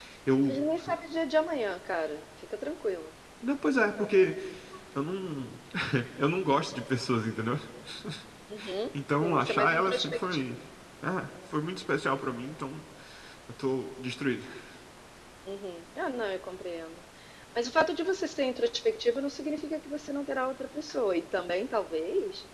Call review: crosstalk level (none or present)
present